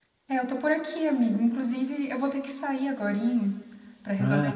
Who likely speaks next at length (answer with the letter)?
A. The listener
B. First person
B